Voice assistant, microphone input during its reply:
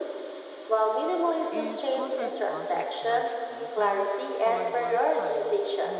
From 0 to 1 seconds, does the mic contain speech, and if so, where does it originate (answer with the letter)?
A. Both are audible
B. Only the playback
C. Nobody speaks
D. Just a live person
B